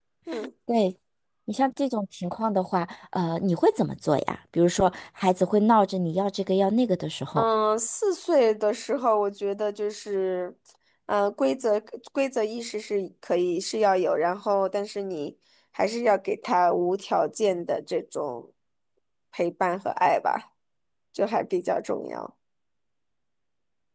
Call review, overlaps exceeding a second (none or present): none